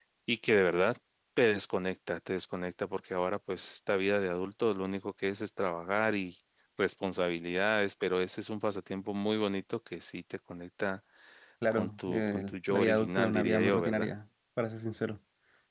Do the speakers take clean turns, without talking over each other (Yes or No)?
No